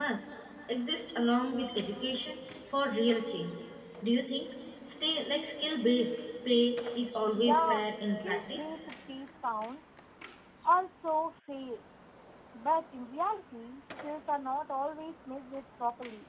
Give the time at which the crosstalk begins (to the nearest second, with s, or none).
7 s